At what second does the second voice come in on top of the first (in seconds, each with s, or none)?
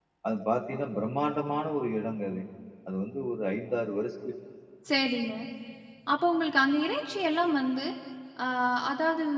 none